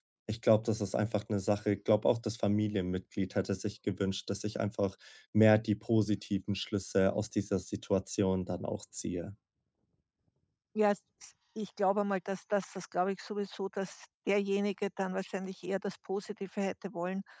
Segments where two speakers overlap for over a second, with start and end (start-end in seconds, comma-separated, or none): none